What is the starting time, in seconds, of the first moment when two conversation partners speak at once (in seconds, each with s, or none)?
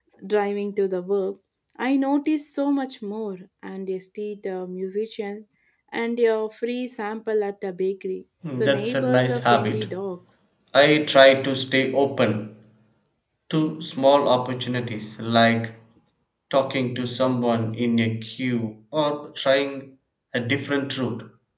8.4 s